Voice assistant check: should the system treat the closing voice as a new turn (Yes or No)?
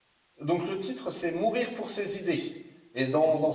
No